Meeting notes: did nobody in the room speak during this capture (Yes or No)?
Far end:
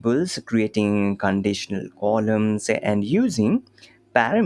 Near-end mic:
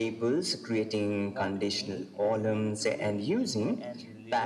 No